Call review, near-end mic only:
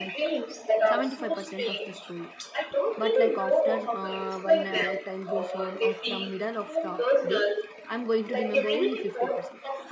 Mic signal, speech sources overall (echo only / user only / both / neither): both